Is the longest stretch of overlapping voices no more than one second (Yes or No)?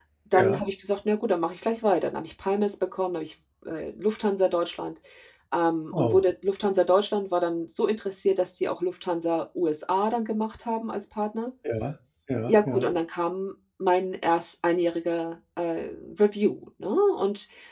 Yes